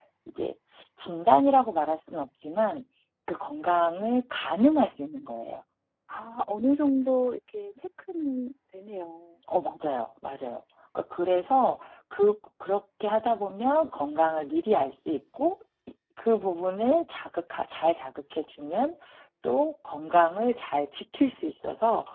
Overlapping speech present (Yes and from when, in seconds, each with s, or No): No